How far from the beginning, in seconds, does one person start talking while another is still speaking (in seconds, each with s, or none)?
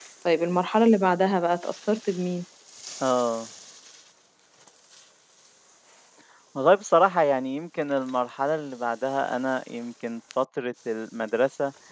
none